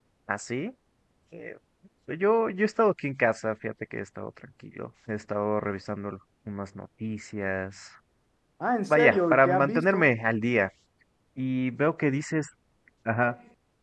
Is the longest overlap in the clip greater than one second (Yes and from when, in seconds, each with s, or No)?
Yes, from 8.9 s